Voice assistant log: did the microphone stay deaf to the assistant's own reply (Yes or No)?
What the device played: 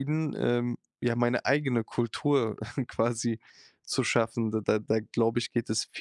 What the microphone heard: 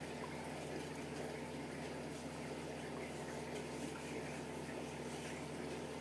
Yes